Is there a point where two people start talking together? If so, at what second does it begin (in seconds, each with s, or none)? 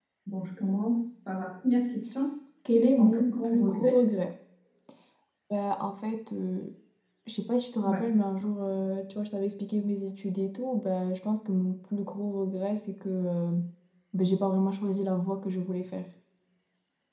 2.6 s